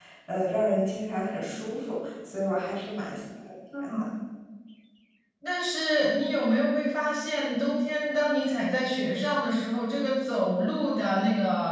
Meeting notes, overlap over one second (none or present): none